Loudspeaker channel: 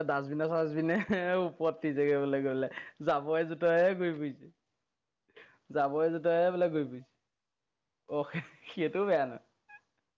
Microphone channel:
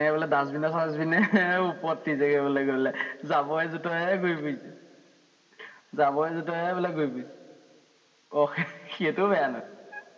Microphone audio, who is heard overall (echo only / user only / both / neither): echo only